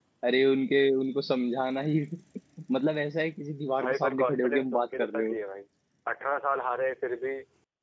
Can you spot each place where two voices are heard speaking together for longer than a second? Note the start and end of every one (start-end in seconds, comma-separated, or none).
3.8-5.4